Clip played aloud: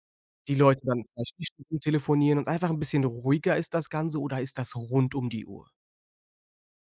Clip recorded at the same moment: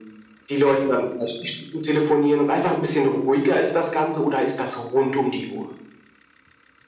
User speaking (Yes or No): No